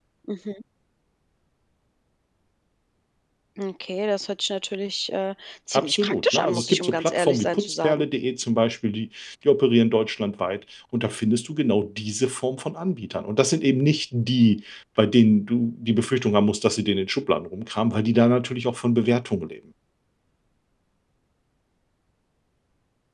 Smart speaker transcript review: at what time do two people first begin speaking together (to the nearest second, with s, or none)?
6 s